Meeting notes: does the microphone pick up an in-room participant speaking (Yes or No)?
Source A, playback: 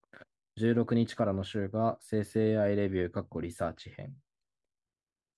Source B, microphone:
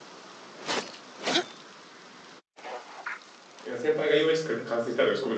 Yes